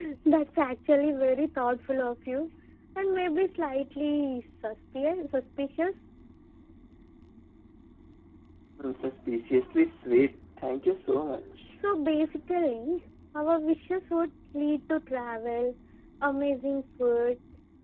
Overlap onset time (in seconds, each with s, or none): none